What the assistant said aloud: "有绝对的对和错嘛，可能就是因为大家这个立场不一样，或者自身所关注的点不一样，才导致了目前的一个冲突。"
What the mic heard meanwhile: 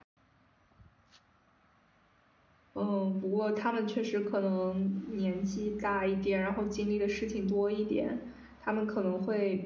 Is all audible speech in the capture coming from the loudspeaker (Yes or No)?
No